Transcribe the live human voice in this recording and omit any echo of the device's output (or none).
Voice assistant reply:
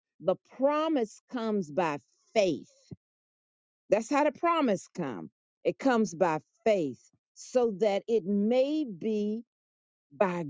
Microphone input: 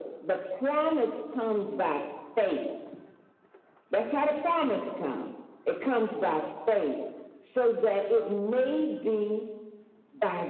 none